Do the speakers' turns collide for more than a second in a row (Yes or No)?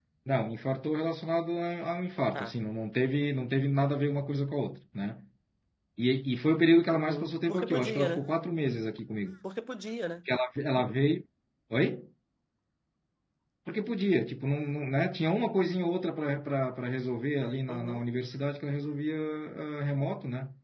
Yes